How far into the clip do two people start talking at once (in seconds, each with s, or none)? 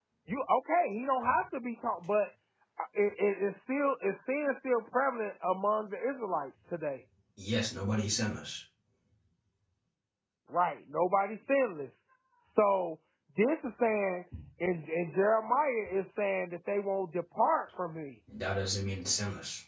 none